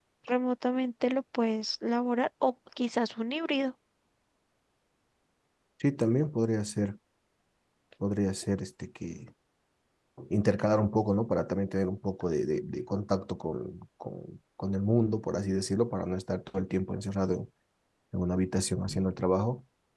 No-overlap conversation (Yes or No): Yes